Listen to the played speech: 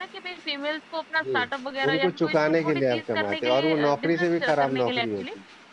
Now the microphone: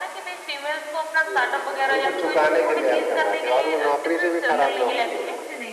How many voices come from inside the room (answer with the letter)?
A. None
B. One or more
B